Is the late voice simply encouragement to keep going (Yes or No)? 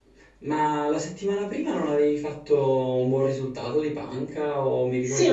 No